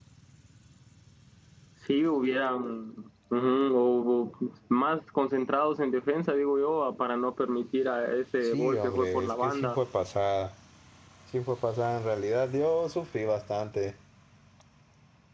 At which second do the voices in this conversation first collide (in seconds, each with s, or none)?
8.4 s